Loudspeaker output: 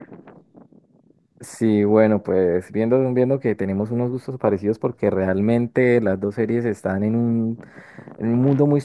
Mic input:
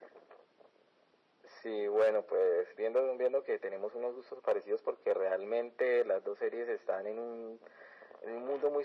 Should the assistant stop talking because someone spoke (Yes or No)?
No